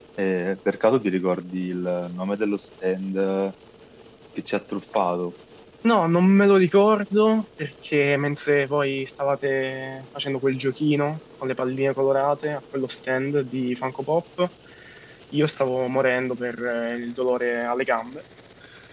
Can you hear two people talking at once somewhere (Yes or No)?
No